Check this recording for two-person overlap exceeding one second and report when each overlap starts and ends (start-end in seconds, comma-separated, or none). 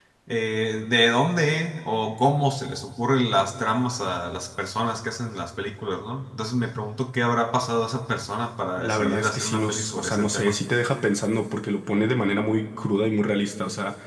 8.8-10.6